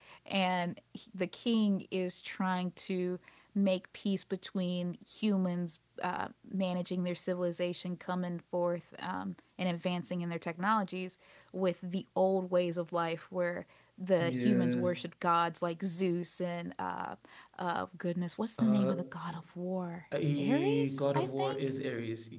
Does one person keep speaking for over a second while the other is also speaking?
Yes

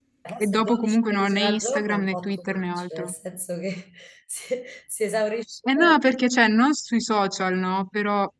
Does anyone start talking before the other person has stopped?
Yes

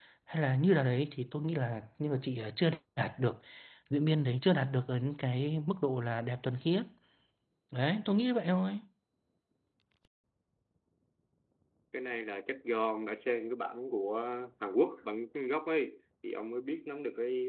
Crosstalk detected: No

